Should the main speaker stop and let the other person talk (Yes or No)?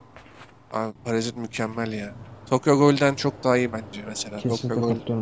Yes